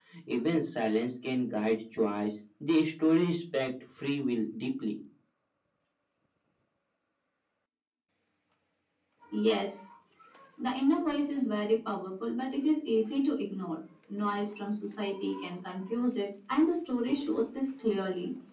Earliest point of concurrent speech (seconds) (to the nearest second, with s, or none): none